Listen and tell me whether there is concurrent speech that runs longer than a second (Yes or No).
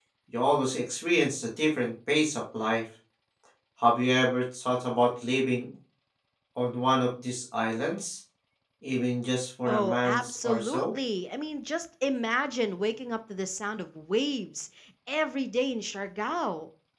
Yes